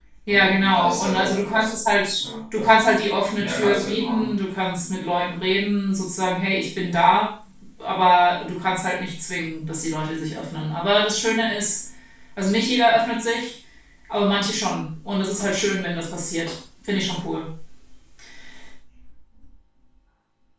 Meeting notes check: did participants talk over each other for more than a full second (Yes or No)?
Yes